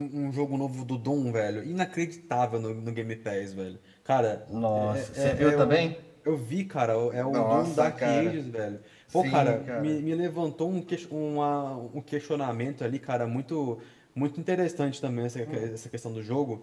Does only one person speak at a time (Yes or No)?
No